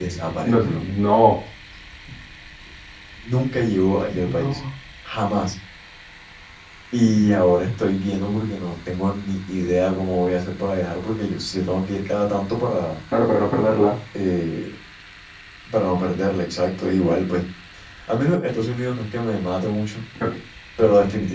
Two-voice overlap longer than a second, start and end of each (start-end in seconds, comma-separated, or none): none